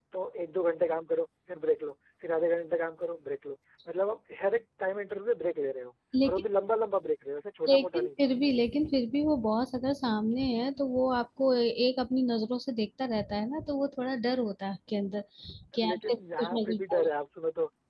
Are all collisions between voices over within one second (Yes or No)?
No